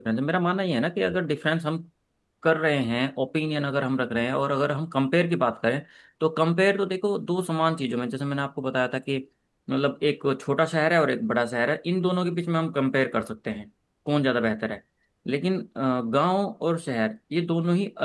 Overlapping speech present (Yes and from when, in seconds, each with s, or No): No